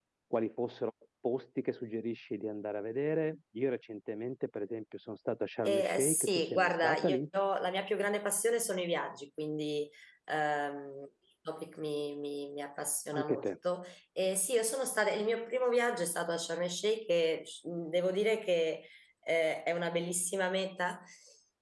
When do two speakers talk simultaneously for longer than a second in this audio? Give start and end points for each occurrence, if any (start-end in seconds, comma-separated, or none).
5.6-7.2